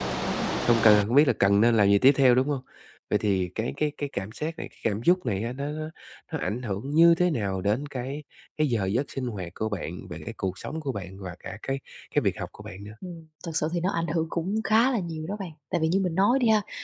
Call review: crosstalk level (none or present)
none